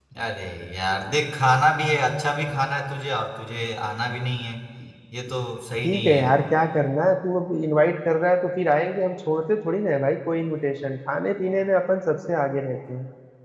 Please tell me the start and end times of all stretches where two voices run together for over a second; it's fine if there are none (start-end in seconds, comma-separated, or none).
none